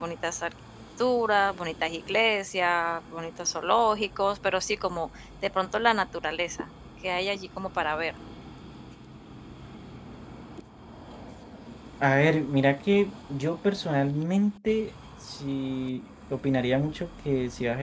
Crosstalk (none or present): none